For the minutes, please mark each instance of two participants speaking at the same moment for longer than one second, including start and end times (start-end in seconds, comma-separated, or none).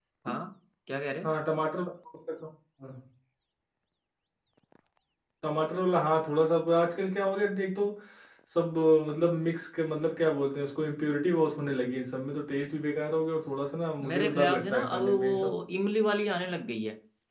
14.0-15.3